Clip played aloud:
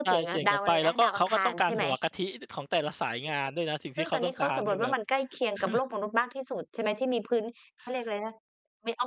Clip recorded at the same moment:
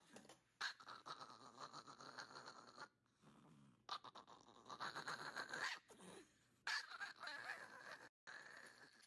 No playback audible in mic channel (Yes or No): Yes